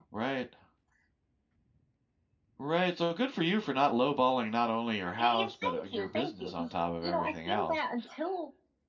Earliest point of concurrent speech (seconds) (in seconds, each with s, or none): 5.2 s